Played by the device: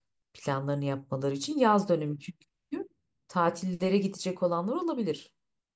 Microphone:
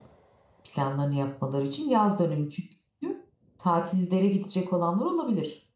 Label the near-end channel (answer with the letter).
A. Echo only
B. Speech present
A